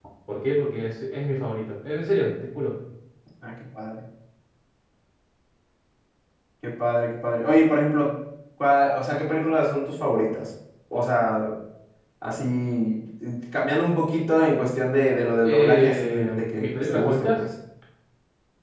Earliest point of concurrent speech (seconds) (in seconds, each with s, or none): 15.4 s